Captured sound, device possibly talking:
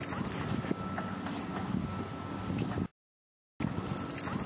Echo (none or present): none